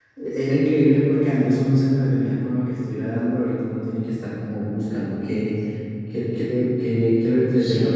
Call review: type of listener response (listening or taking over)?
taking over